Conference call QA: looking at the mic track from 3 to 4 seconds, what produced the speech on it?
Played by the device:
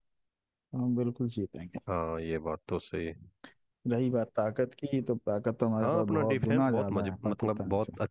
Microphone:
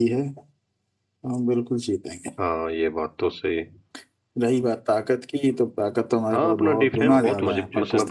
echo only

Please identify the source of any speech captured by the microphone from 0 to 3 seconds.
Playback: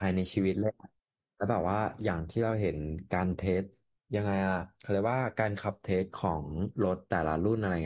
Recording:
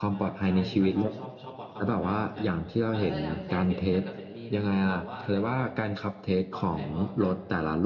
both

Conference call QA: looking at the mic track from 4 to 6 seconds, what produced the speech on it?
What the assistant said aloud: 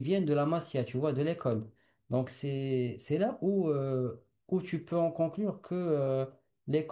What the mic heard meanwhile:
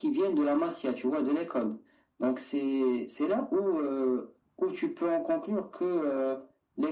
echo only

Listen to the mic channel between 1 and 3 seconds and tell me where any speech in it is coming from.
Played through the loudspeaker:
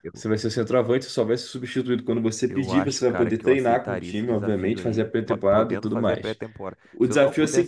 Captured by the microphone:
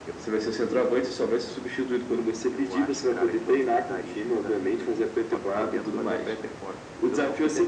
echo only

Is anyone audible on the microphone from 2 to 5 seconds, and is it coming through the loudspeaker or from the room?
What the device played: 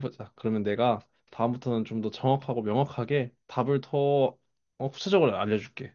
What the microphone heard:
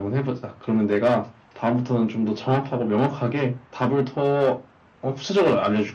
echo only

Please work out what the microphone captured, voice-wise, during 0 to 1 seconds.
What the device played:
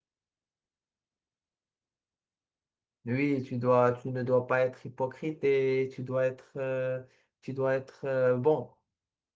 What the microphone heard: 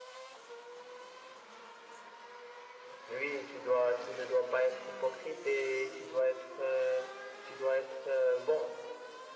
neither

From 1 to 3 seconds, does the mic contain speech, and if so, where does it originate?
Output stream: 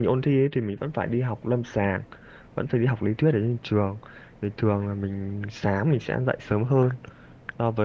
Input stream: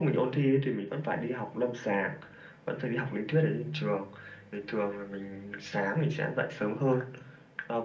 echo only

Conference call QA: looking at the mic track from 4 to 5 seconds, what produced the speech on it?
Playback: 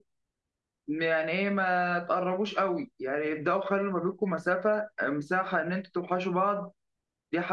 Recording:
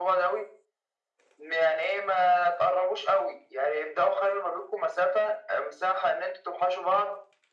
echo only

